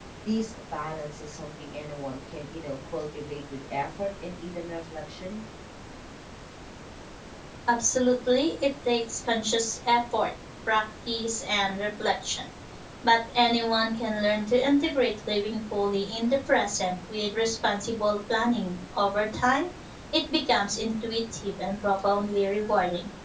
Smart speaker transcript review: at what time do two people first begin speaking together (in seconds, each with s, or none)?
none